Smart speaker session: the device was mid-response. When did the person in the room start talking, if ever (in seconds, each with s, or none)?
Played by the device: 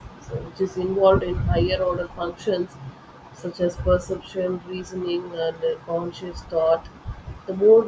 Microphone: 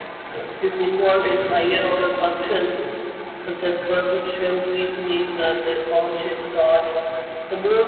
none